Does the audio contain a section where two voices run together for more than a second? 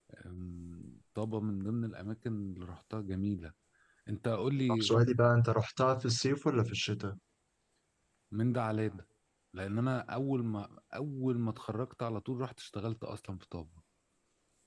No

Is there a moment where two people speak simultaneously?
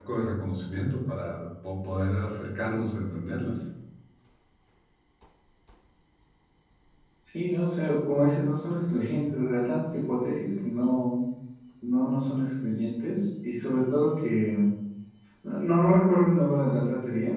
No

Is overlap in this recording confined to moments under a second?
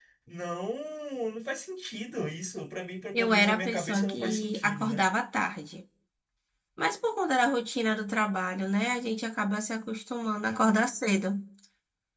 No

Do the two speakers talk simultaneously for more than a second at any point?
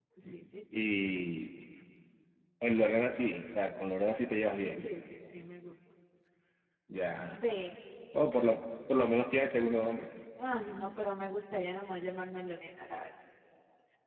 No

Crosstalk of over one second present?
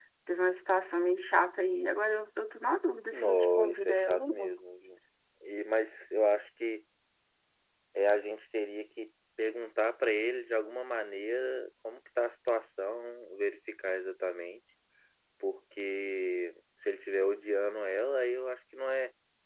Yes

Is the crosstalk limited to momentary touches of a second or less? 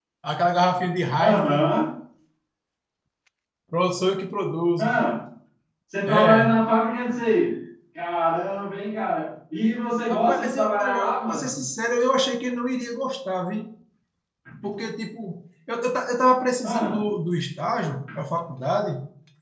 No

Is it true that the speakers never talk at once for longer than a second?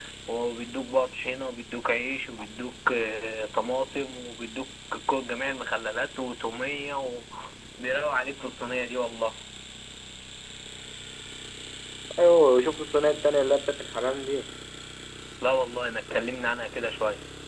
Yes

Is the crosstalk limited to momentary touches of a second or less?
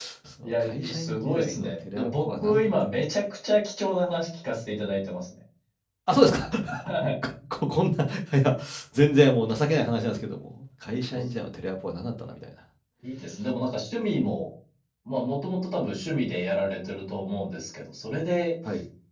No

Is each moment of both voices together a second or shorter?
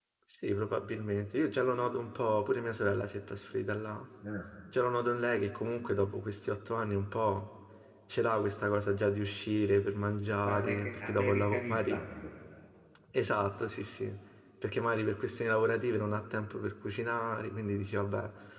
No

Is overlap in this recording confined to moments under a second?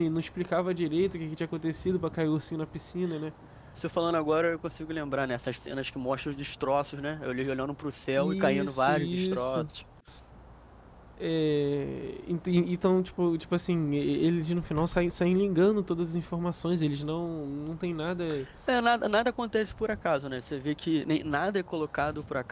No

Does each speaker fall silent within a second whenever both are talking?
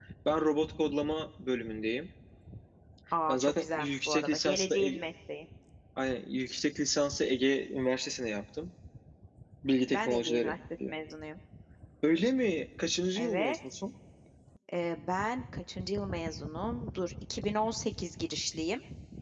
No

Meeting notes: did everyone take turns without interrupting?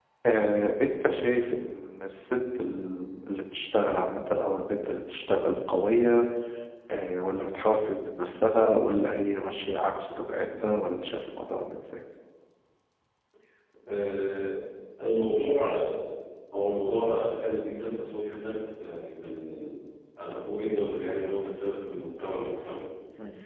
Yes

